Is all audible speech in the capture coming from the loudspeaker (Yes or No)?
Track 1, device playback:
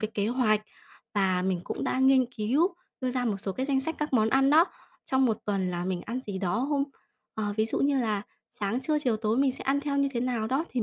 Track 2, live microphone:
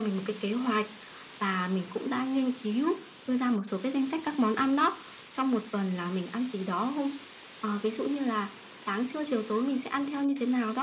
Yes